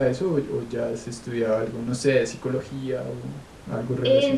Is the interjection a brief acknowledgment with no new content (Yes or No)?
No